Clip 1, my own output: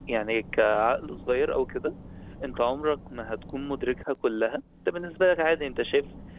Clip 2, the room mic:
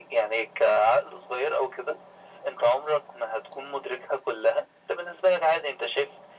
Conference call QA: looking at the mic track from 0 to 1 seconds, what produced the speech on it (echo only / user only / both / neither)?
echo only